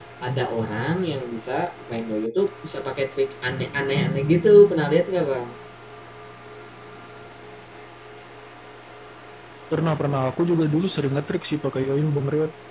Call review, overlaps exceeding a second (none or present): none